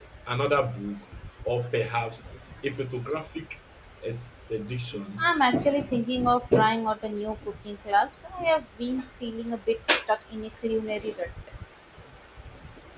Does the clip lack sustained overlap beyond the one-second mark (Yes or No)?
Yes